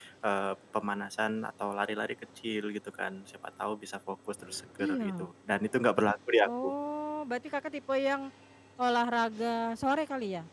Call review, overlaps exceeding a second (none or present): none